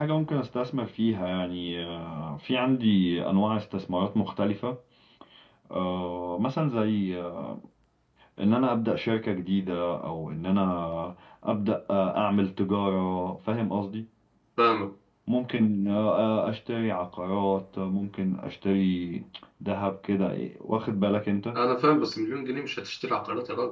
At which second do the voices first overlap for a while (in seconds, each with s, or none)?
none